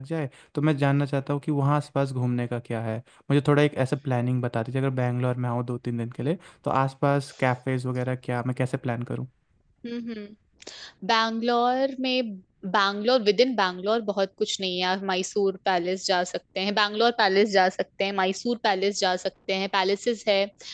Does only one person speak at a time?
Yes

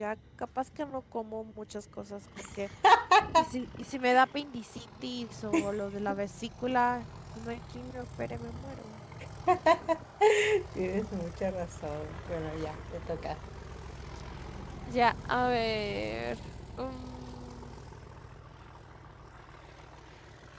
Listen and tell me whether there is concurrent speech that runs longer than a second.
No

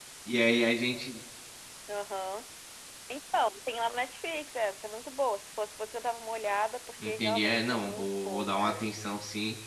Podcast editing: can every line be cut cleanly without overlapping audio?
No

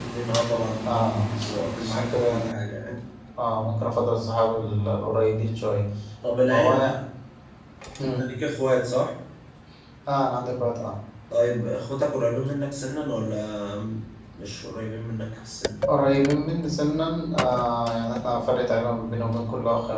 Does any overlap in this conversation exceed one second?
Yes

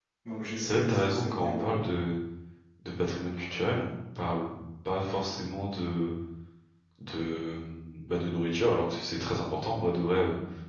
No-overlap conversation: No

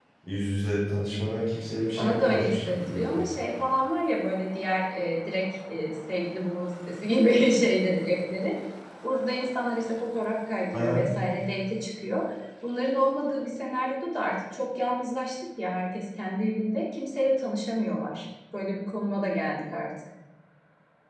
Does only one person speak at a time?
No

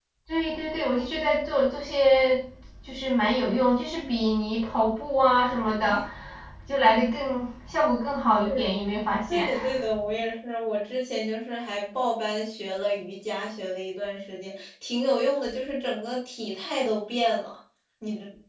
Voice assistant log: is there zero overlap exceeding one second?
Yes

